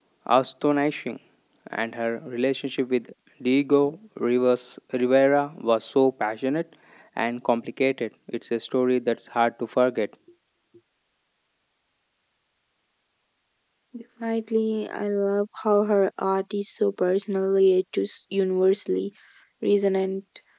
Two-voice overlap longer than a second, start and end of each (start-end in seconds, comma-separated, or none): none